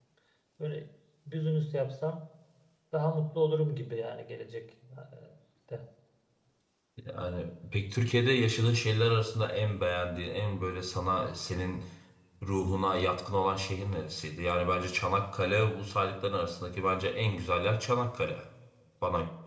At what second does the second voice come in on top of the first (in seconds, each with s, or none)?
none